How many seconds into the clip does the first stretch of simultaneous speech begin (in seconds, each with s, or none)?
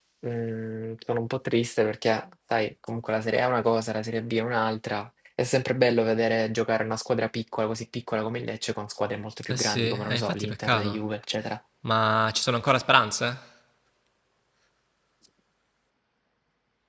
9.4 s